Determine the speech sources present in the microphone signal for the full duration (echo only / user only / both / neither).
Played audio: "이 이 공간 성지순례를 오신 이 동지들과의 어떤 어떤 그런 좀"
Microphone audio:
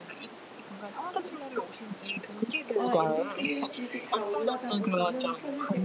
both